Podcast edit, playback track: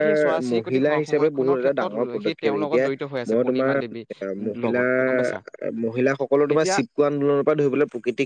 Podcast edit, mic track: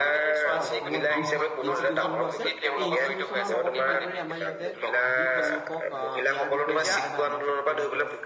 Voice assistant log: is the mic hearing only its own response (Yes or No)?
No